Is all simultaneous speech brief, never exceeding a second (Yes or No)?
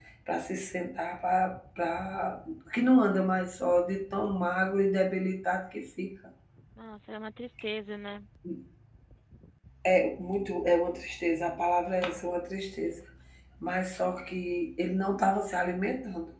Yes